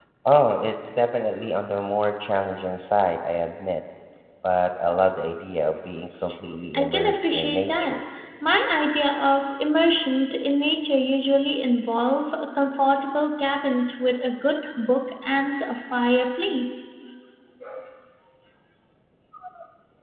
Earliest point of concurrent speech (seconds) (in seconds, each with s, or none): 6.7 s